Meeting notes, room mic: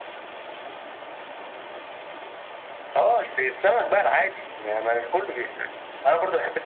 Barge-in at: none

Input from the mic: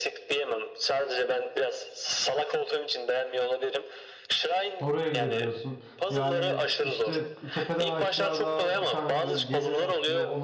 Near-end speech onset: 4.8 s

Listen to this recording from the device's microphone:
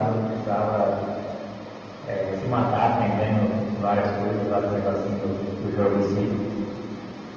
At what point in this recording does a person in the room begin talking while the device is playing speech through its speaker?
none

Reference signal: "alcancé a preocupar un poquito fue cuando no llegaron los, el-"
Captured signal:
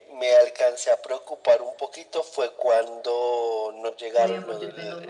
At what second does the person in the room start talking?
4.2 s

